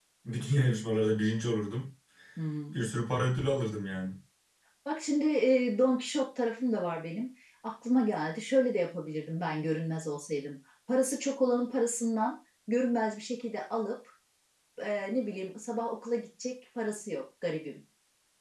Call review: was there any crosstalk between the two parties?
No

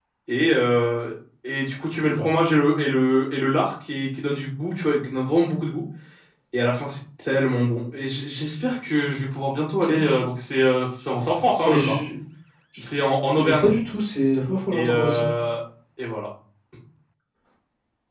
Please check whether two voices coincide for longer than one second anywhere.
No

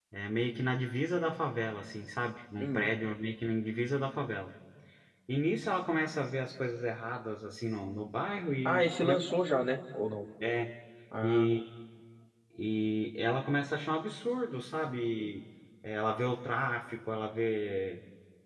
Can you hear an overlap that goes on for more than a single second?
No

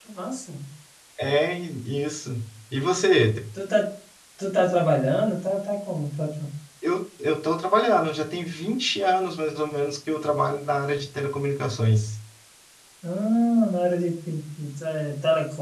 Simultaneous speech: No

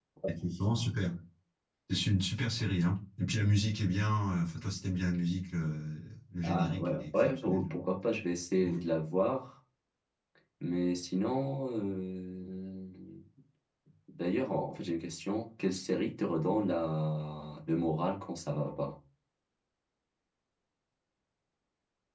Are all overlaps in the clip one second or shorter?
No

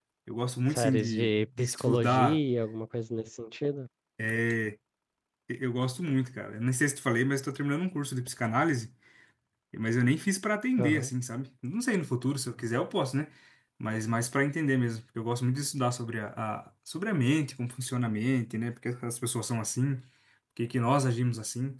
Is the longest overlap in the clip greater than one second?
Yes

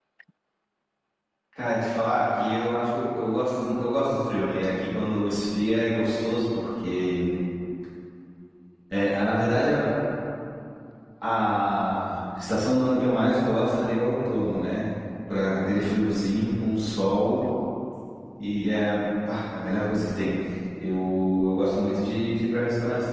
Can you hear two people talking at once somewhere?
No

